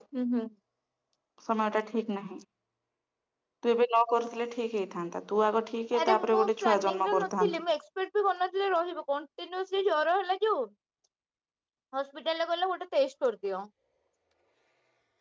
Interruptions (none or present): present